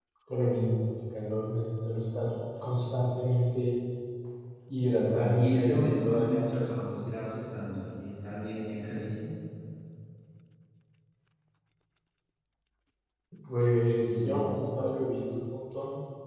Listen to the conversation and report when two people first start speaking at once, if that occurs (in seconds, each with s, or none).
5.0 s